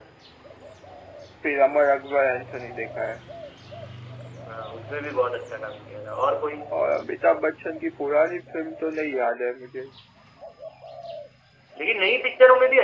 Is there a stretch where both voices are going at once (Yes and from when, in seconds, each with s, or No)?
No